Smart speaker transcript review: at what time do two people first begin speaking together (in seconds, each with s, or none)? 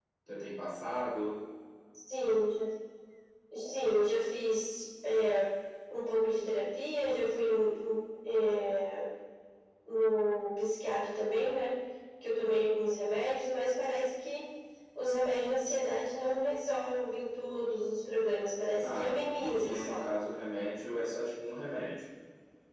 18.8 s